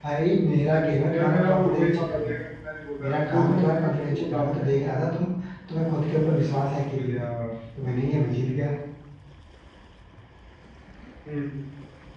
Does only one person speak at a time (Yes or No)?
No